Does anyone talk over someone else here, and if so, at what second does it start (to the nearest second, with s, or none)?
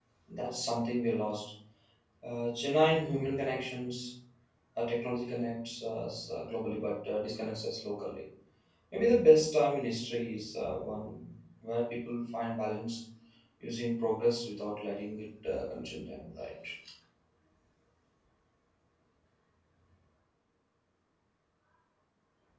none